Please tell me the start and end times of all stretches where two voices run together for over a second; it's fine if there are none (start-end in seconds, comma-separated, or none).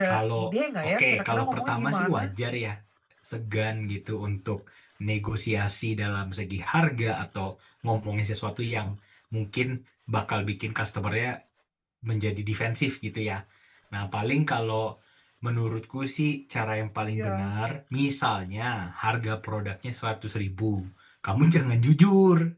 0.8-2.2